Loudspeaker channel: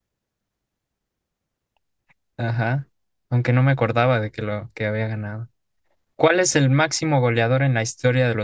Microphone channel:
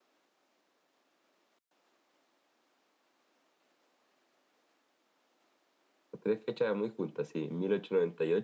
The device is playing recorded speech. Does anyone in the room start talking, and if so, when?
6.2 s

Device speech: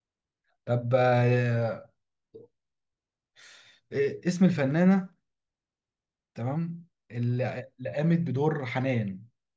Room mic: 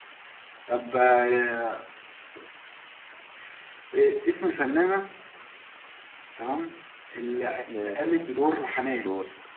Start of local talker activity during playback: 7.7 s

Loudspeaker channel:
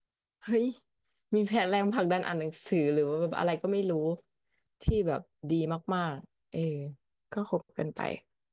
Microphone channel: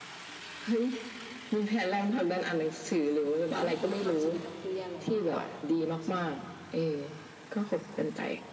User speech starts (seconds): 3.5 s

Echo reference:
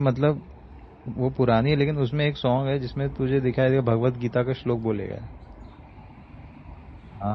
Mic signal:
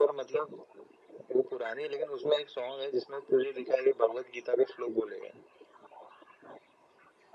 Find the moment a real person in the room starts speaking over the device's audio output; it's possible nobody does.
none

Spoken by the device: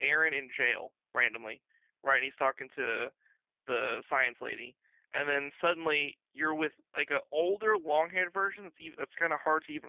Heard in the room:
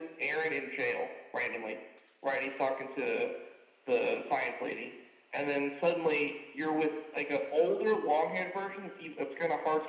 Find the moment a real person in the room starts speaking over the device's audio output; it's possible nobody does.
none

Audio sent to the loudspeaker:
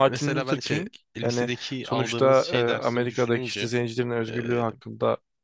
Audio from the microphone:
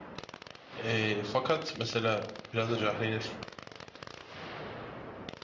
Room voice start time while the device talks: 0.8 s

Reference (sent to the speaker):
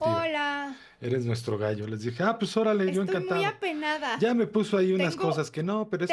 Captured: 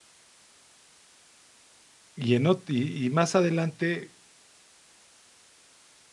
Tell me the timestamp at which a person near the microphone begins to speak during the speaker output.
2.2 s

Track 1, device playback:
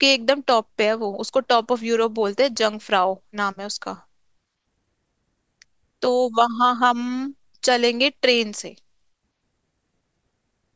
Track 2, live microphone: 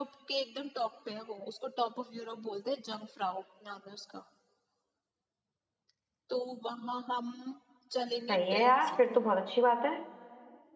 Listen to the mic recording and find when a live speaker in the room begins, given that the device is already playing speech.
8.3 s

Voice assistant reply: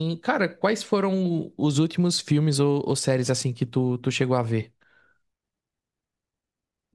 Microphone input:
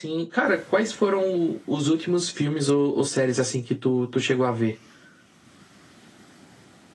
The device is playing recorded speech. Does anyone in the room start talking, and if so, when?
none

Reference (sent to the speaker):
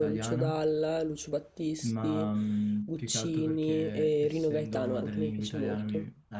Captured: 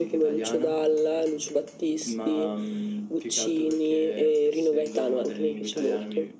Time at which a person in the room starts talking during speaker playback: none

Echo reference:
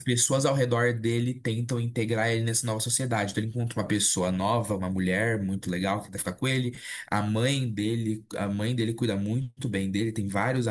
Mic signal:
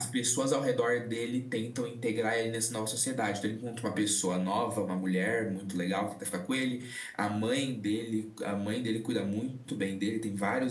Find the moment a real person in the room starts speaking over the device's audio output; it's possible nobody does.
none

